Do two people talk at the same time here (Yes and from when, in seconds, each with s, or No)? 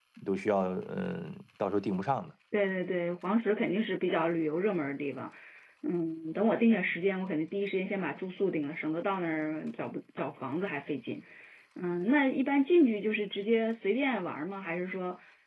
No